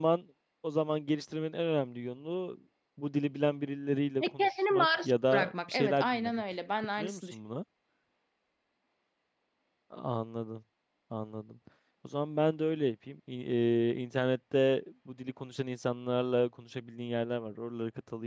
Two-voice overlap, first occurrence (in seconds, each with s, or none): 4.2 s